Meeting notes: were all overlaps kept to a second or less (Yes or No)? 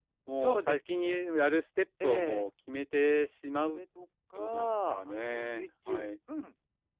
No